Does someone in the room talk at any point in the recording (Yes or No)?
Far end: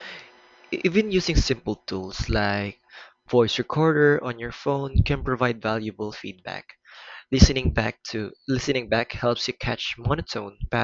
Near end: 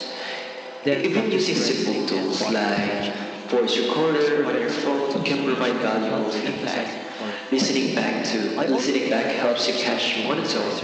Yes